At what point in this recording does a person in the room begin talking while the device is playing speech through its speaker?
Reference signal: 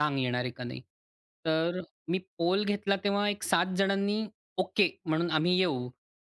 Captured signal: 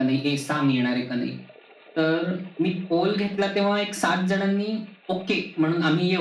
none

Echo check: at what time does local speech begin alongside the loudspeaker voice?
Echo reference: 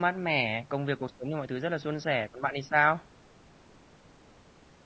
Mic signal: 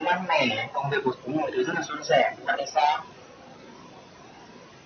none

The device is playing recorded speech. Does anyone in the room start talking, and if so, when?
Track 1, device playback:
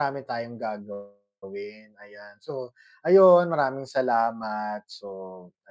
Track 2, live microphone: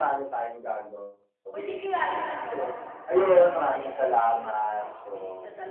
2 s

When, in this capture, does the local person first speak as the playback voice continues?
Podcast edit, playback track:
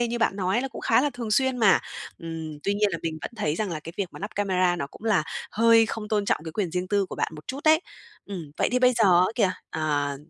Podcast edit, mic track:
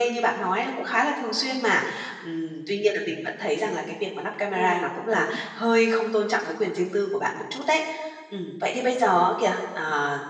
5 s

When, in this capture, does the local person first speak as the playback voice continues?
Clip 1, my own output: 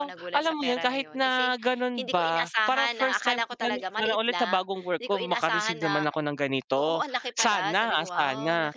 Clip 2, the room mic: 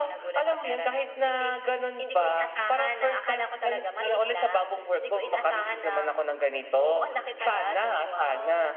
none

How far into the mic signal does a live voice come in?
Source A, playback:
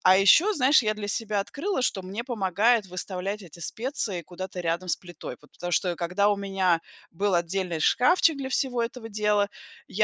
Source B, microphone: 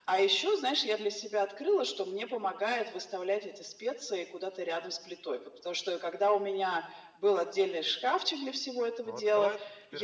9 s

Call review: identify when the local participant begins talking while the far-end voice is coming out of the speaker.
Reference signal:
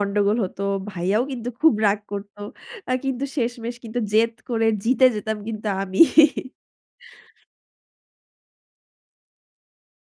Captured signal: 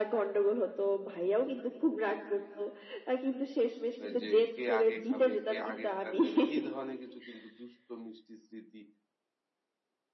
4 s

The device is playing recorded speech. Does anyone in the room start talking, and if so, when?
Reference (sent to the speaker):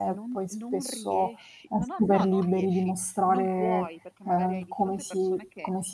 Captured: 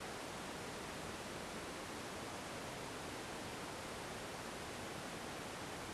none

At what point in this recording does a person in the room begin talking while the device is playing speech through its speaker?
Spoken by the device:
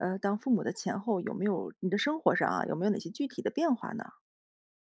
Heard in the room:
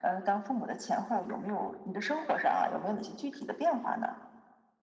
none

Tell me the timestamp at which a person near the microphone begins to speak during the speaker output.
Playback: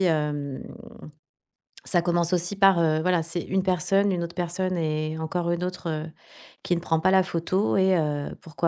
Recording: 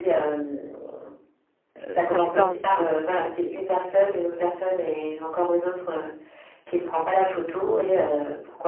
2 s

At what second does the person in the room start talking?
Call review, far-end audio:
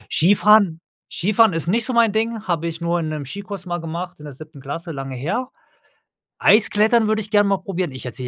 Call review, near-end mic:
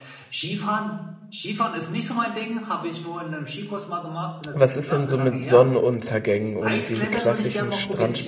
4 s

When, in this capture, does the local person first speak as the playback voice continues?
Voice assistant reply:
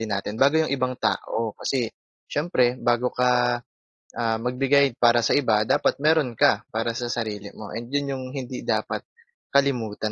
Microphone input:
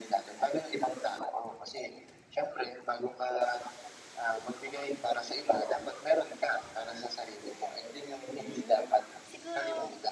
8 s

